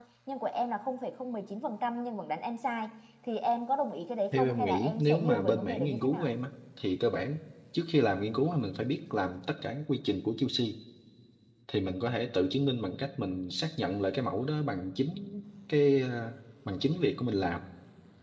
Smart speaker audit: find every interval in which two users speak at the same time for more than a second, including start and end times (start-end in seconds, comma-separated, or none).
4.3-6.3